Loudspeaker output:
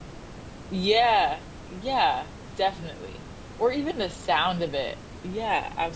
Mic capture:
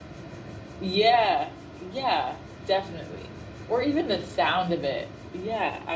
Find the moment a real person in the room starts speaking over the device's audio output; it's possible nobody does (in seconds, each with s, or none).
none